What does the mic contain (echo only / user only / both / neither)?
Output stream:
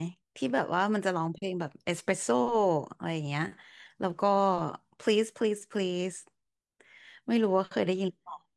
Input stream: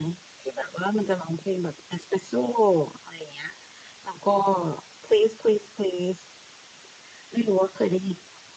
echo only